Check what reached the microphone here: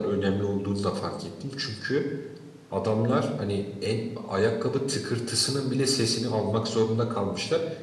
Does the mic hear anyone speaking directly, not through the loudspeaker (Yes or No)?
No